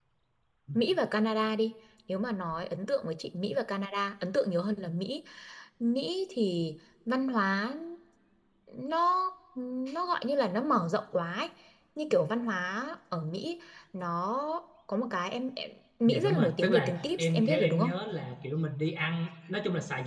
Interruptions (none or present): present